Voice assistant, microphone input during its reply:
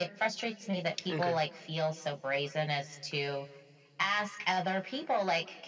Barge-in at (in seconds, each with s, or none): 1.1 s